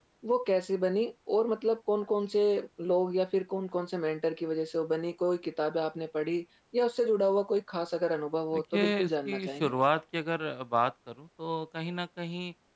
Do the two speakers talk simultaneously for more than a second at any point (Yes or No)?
Yes